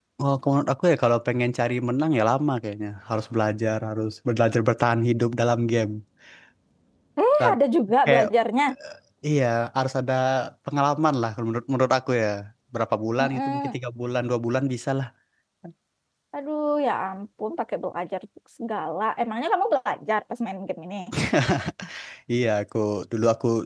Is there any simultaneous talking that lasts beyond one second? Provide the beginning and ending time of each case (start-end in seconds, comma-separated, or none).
none